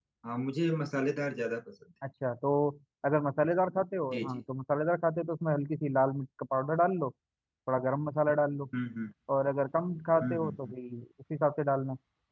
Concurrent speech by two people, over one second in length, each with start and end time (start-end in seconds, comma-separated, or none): none